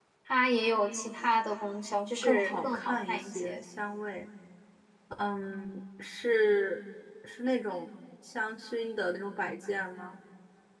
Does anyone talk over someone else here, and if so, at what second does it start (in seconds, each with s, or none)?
2.2 s